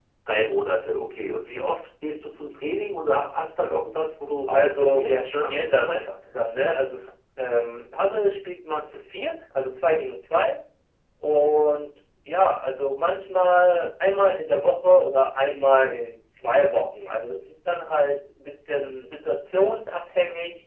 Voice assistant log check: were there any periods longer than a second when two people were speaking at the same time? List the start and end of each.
4.5-6.0

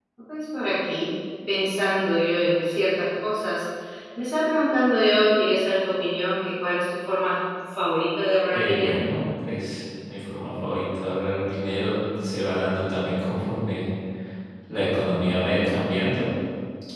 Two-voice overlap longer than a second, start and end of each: none

